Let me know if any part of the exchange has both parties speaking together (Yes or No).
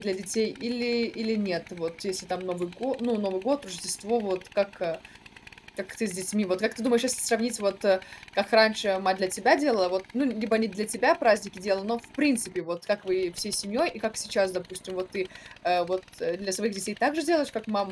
No